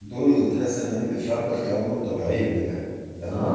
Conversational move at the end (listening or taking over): taking over